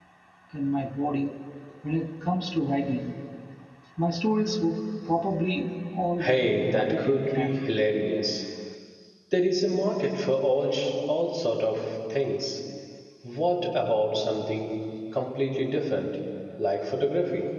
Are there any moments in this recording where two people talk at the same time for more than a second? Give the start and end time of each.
6.2-7.5

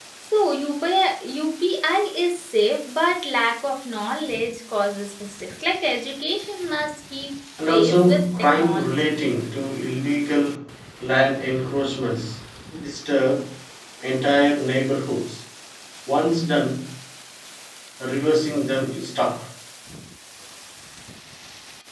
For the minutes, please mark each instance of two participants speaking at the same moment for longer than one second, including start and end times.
7.7-8.9

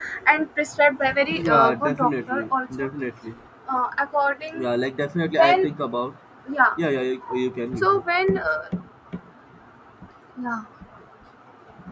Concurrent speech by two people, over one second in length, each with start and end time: 1.4-2.9

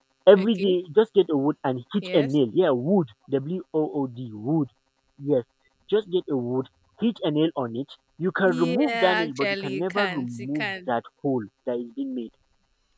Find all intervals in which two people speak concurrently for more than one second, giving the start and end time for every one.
8.4-10.9

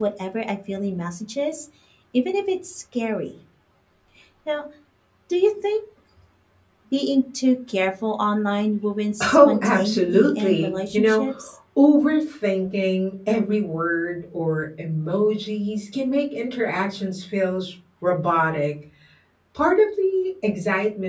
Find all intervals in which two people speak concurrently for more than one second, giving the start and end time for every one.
9.3-11.3

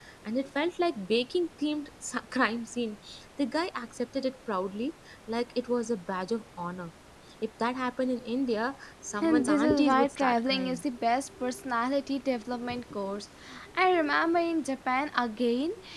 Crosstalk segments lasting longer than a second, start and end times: 9.2-10.8

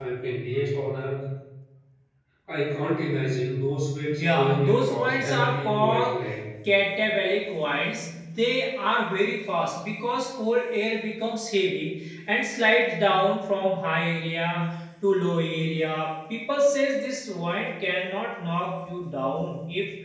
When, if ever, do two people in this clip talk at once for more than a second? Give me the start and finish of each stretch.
4.1-6.2

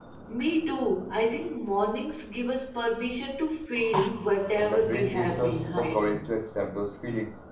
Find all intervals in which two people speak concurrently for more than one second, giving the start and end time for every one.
4.6-6.2

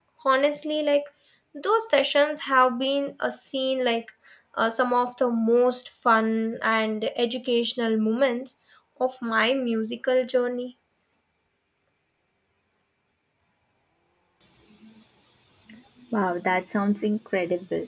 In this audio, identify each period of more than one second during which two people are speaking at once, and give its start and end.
none

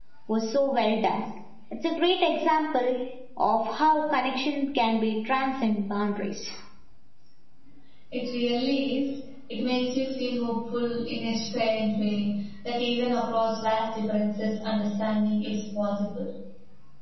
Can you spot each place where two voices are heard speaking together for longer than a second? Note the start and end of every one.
none

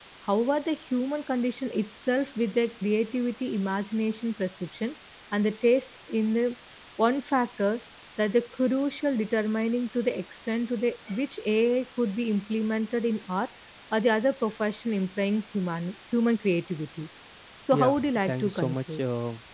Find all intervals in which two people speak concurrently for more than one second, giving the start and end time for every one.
17.7-19.0

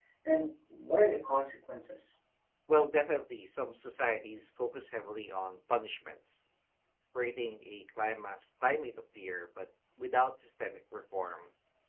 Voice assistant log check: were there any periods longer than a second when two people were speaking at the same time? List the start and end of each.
none

